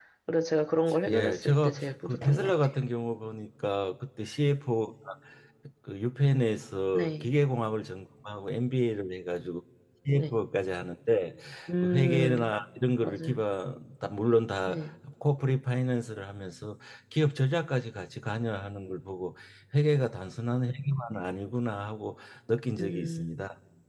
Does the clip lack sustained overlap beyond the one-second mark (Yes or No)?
No